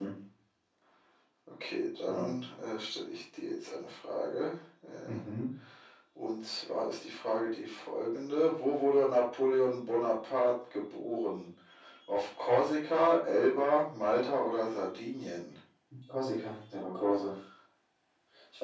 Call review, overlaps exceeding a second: none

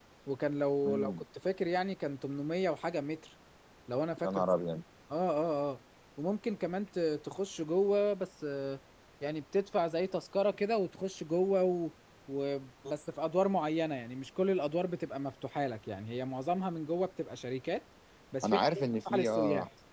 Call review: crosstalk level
present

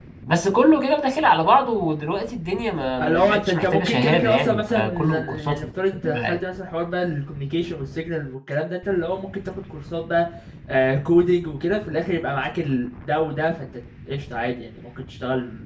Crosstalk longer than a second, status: present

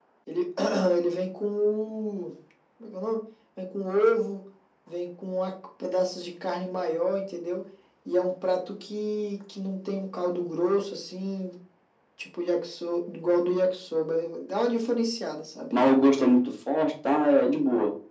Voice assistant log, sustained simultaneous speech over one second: none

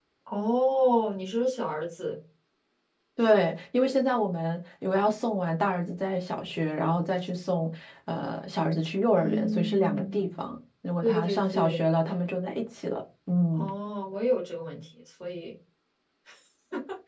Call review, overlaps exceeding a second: present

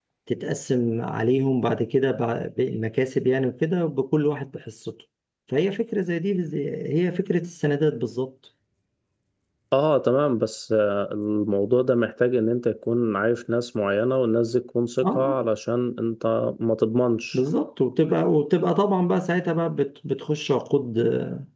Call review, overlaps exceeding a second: none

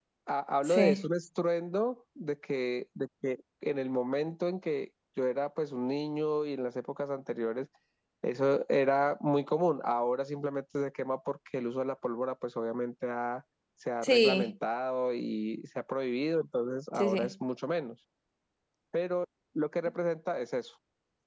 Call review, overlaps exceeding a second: none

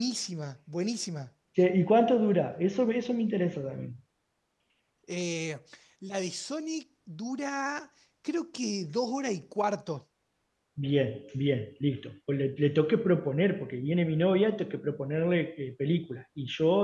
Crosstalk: none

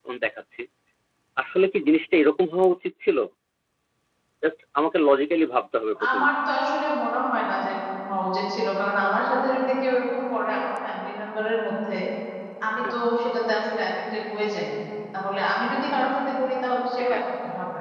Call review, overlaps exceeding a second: none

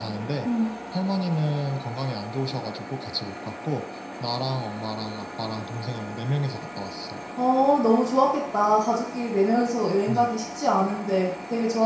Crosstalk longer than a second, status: none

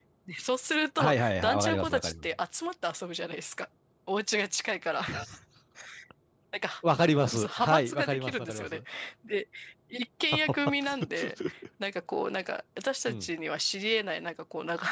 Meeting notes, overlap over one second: present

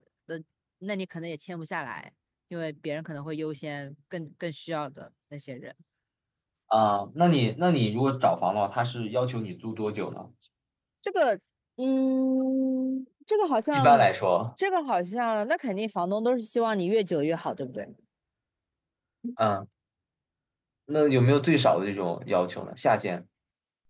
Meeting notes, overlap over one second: none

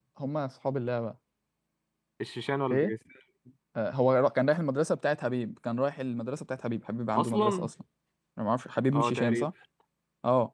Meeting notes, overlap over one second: none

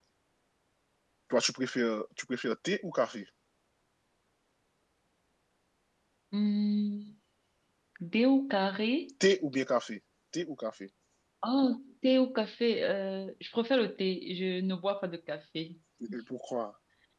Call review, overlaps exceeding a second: none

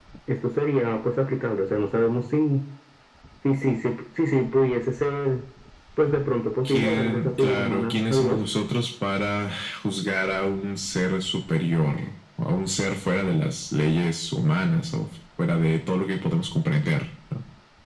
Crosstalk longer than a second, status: present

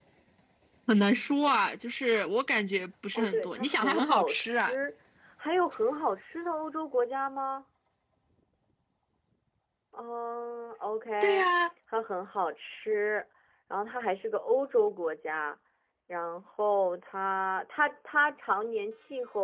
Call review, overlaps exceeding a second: present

